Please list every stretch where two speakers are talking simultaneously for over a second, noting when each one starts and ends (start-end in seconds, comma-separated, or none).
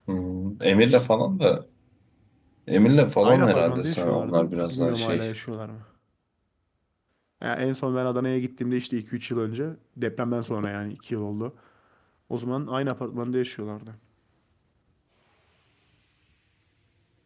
3.2-5.3